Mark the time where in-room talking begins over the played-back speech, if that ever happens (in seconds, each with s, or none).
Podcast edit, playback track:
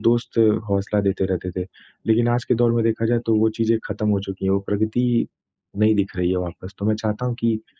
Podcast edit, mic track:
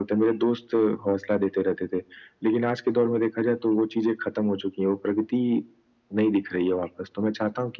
none